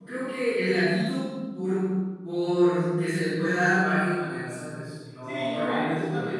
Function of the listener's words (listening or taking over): taking over